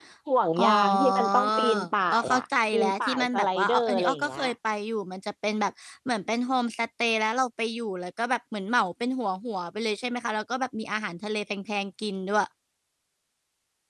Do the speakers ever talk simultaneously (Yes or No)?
Yes